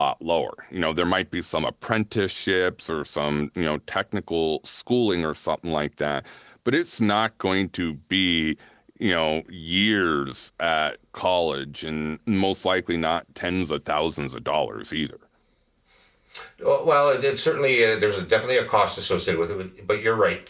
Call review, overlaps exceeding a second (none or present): none